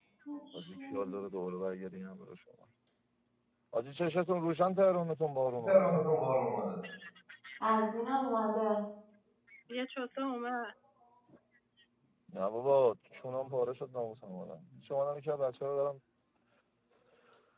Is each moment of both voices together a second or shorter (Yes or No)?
Yes